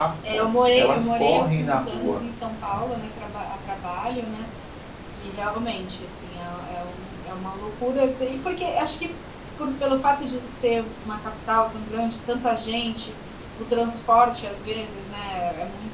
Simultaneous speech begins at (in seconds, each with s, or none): 0.7 s